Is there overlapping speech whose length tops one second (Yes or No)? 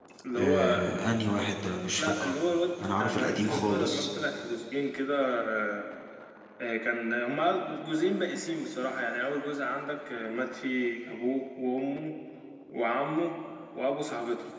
Yes